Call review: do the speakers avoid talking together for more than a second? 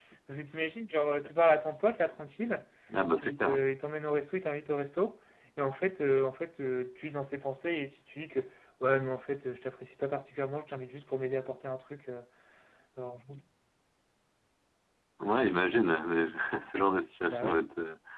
Yes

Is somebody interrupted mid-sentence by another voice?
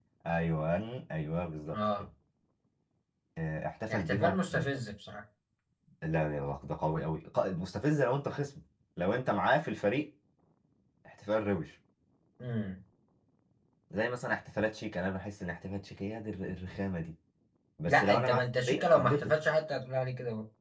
Yes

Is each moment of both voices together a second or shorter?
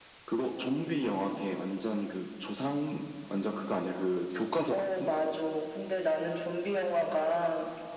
Yes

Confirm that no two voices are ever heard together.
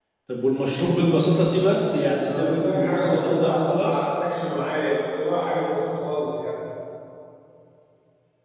No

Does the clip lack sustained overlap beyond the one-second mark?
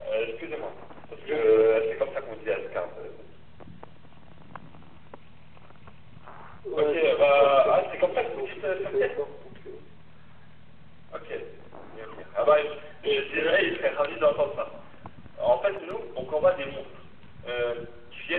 No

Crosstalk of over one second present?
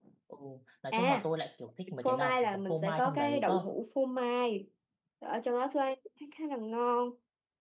Yes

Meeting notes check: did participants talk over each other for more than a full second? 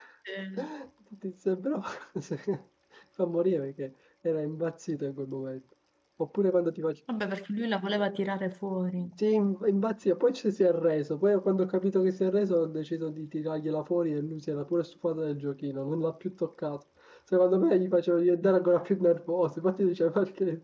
No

